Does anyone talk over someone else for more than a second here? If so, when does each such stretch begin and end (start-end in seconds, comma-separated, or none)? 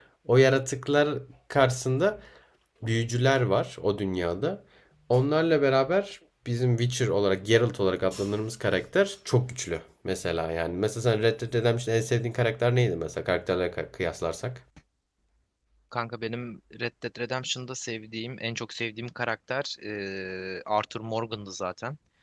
none